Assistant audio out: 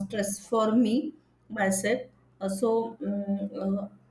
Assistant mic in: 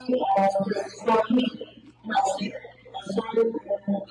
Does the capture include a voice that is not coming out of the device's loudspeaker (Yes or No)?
No